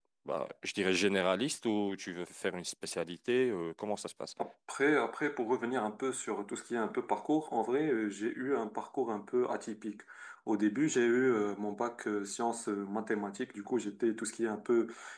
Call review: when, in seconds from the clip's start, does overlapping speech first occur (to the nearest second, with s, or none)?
none